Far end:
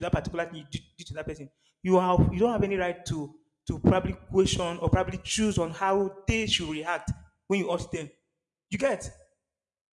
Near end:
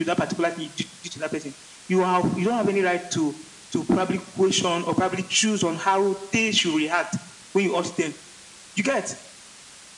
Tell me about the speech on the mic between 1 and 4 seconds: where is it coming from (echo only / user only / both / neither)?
echo only